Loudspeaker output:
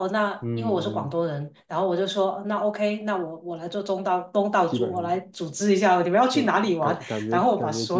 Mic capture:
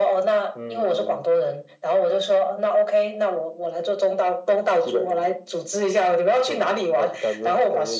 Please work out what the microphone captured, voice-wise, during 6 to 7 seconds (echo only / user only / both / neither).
echo only